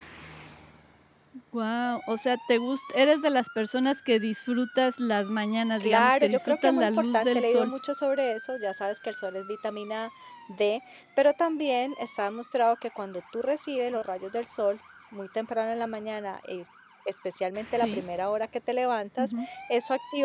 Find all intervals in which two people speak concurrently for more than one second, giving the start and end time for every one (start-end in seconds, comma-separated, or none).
5.8-7.7